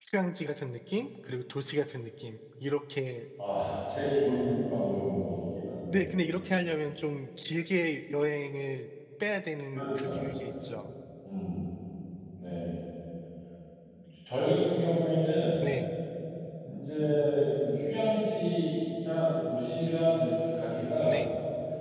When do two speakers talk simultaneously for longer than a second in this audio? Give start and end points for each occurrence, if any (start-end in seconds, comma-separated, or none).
none